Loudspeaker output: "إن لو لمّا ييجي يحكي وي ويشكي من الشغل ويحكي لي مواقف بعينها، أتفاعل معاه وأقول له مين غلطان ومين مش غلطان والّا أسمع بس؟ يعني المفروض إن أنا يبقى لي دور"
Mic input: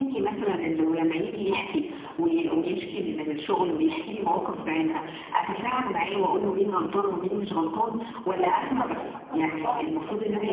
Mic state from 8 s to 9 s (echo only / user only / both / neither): both